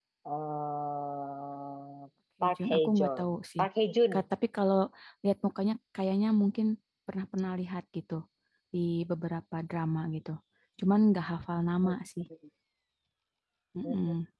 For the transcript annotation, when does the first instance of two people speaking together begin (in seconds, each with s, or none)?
2.4 s